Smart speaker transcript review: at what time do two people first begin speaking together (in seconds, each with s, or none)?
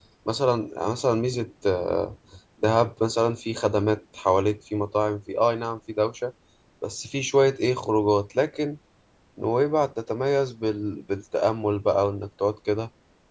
none